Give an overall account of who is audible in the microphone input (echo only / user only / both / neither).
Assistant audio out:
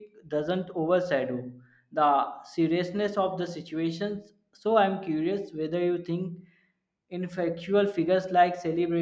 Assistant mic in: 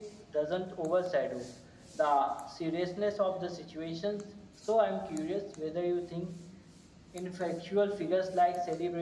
echo only